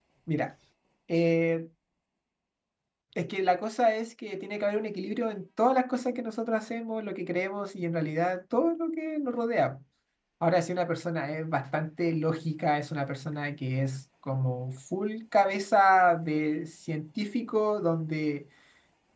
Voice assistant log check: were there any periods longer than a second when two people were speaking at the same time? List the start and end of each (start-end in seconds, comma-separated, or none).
none